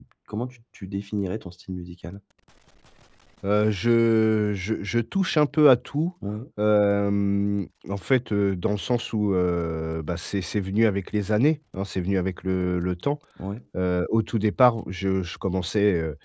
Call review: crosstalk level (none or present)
none